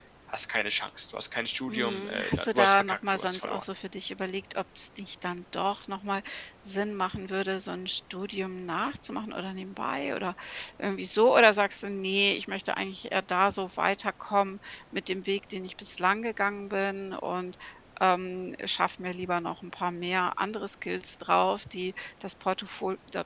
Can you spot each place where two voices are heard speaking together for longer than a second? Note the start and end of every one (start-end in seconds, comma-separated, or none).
1.7-3.6